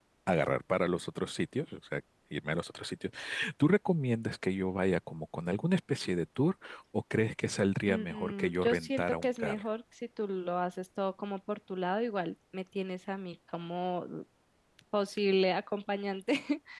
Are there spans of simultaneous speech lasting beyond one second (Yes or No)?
Yes